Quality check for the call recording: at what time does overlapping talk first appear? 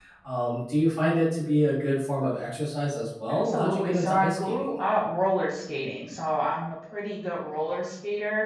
3.3 s

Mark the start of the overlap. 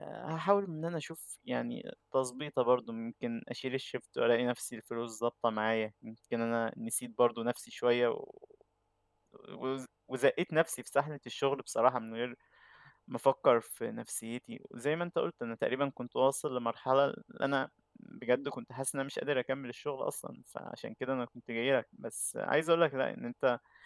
none

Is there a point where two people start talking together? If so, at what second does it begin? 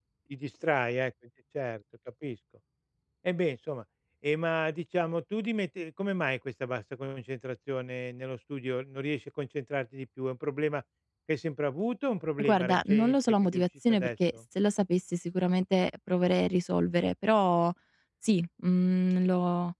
12.4 s

